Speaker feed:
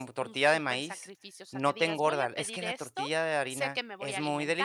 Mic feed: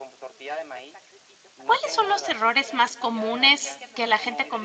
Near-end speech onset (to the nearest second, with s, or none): 2 s